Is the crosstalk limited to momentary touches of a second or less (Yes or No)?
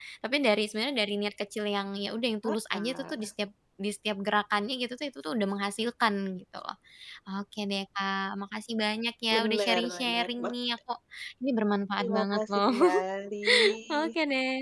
No